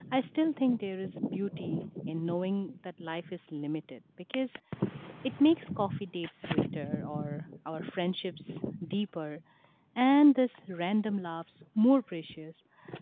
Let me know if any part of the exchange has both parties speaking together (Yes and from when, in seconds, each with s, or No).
No